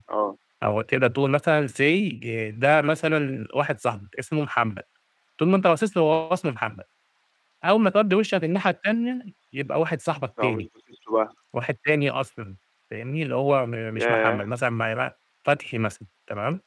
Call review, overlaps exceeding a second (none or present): none